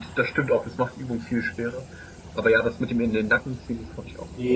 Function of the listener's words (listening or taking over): taking over